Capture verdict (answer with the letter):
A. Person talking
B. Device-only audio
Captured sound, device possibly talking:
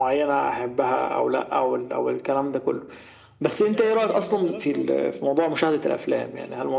A